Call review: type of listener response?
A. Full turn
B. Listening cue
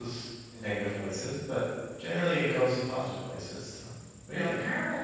A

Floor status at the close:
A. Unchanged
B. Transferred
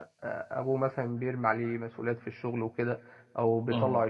A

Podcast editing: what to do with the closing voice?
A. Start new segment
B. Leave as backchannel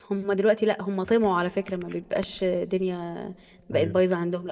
B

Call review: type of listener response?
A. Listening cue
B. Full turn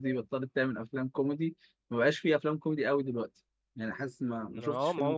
B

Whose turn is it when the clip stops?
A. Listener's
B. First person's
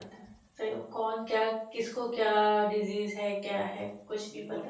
A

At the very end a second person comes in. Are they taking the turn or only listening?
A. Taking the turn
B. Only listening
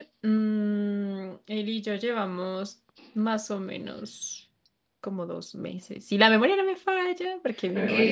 A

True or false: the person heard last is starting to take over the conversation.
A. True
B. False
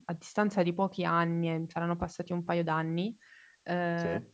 B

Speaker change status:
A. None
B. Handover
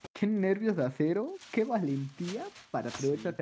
A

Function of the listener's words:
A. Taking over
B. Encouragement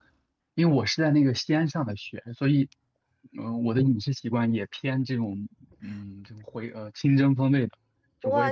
A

